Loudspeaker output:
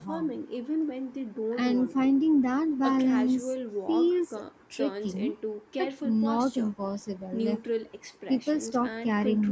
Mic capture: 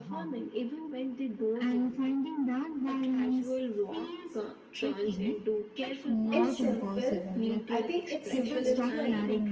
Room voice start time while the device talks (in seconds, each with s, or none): 6.3 s